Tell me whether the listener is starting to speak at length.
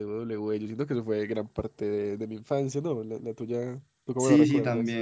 Yes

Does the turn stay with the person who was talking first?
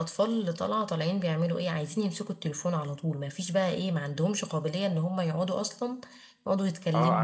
No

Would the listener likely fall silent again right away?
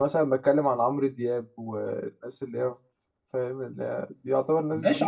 No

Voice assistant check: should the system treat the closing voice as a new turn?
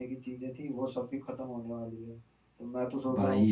No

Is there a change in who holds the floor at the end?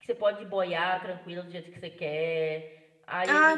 Yes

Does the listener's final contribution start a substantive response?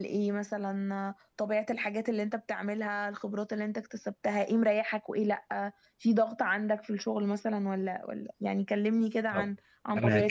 Yes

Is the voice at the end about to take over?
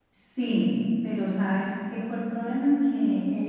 No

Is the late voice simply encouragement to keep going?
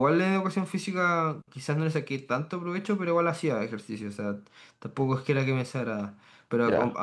Yes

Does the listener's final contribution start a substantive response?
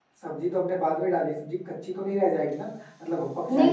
Yes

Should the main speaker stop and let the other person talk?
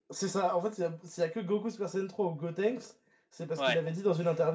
No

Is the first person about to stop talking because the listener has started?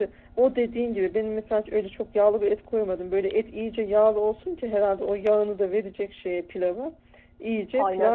No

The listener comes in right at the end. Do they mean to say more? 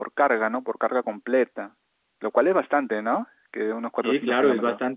Yes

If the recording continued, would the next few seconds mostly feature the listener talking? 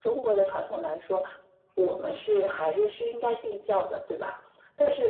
No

